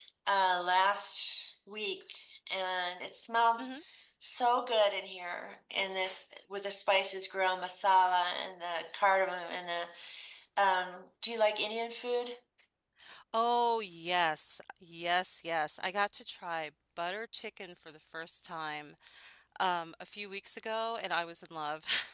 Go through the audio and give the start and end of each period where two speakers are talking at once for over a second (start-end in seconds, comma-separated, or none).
none